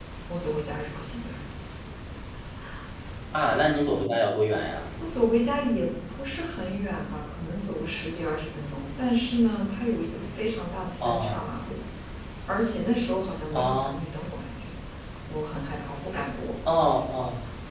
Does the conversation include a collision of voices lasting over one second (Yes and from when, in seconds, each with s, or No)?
No